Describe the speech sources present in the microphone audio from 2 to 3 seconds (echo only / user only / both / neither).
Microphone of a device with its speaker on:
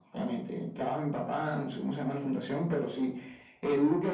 echo only